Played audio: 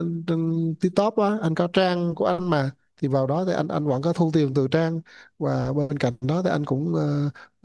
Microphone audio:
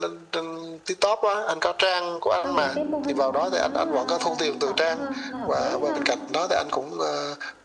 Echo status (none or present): present